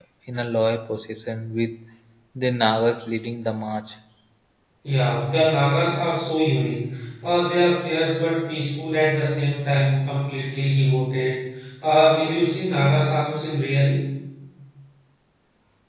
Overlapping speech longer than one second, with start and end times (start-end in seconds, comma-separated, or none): none